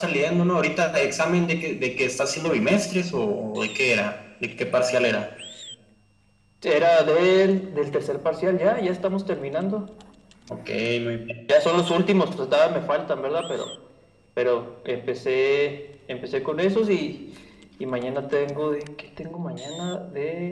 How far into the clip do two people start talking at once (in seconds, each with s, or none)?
none